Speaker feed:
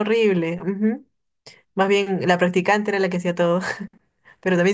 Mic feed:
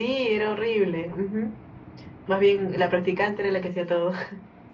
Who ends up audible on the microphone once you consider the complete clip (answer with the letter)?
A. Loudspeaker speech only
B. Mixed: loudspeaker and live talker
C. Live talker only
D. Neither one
A